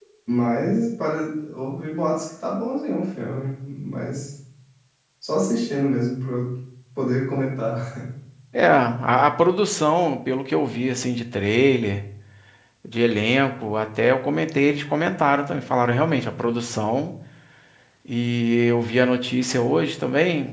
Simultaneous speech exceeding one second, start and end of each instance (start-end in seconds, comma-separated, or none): none